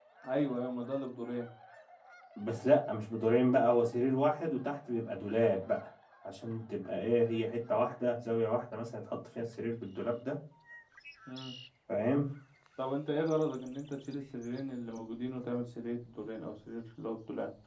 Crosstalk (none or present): none